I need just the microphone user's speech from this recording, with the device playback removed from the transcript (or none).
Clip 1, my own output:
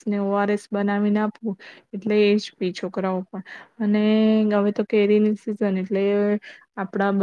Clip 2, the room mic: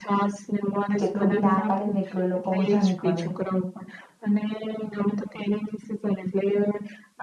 કેટલું બી ના પાડે ને એટલું એ લોકો વધારે કરે.